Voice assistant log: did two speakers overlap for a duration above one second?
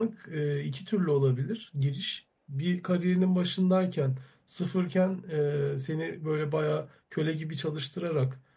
No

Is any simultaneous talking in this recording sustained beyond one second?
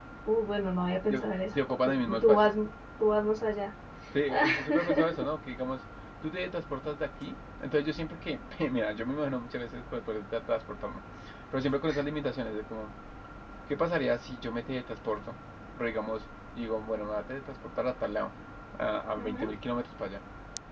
Yes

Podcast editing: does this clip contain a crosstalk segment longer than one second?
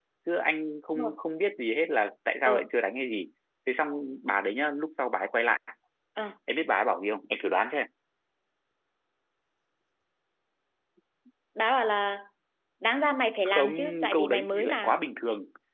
Yes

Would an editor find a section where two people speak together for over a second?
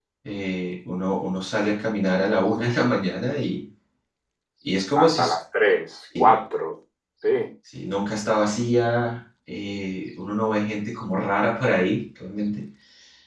No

